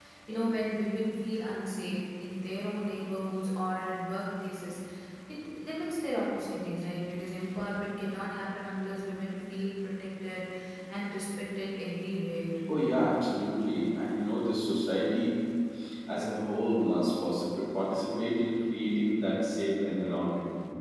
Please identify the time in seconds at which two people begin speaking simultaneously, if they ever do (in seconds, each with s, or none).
none